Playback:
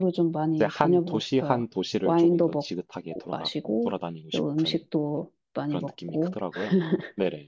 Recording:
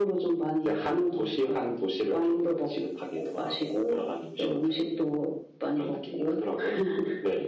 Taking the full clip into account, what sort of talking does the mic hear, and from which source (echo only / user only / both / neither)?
echo only